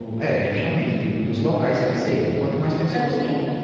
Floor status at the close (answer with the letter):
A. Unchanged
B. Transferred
B